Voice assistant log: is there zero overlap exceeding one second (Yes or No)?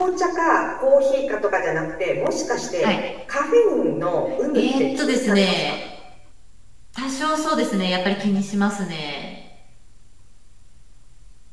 No